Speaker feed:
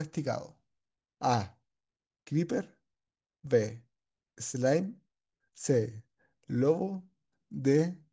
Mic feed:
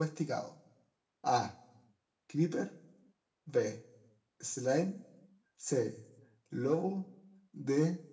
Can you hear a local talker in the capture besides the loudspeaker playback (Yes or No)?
No